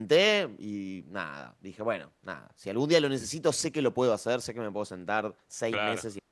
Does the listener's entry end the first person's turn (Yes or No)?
No